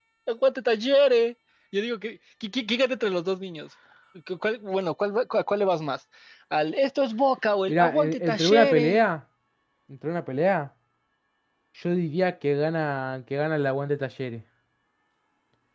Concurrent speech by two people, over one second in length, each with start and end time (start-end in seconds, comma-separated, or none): 7.7-9.0